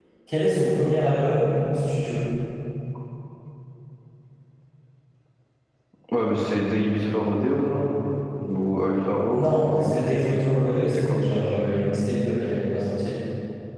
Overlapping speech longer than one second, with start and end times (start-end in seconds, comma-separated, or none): 9.3-11.2